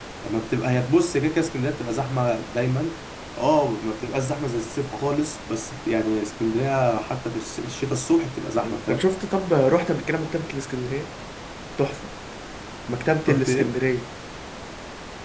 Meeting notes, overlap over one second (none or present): none